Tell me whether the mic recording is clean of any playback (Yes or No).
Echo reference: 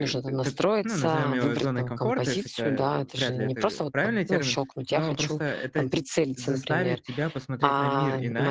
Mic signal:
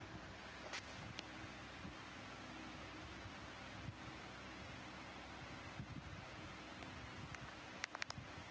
Yes